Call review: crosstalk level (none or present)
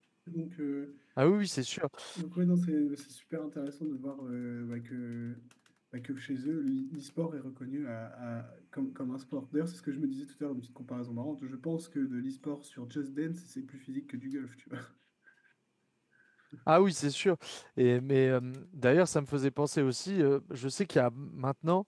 none